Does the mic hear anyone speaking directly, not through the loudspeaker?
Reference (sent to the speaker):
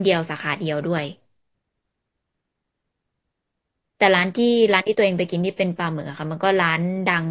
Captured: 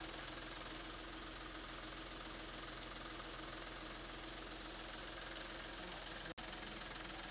No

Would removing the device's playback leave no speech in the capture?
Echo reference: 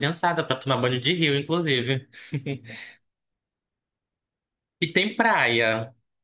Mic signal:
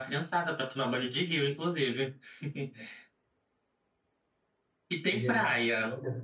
No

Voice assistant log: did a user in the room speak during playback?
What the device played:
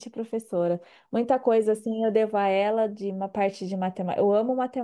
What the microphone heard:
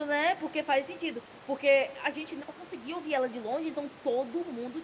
Yes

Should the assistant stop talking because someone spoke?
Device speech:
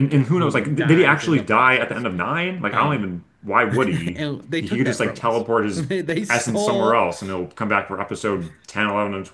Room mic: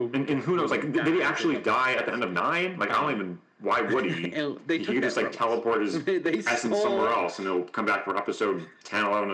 No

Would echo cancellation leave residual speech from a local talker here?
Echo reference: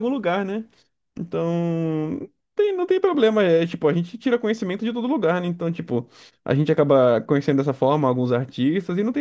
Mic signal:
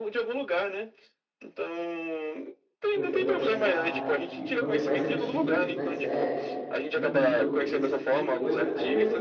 Yes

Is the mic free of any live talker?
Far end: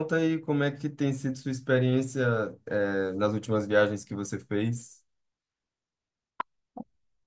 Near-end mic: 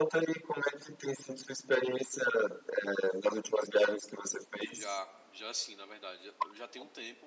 No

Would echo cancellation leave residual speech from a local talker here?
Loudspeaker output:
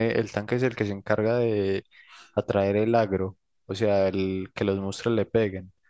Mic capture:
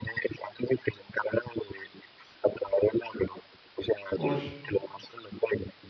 Yes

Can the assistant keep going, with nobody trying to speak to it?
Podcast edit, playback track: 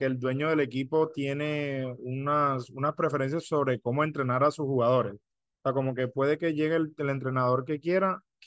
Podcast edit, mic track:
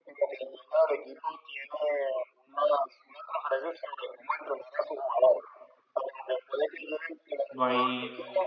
No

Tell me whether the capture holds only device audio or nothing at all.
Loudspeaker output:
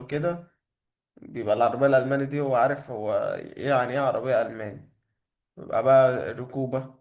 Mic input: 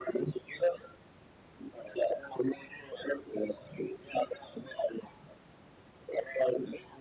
Yes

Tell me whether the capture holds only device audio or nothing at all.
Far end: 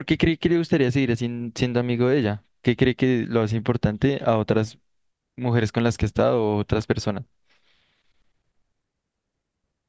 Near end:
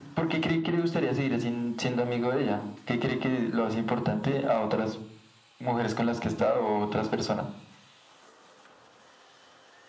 Yes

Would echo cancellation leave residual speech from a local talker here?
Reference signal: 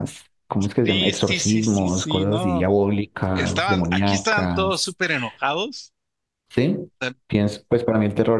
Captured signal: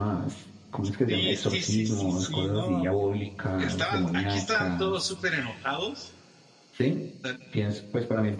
No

